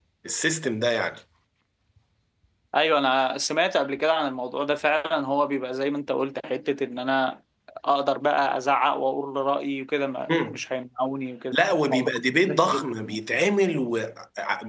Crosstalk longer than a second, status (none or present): present